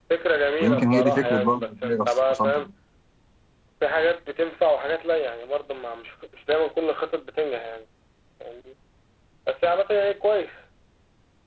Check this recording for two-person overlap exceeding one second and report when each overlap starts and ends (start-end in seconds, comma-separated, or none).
0.6-2.7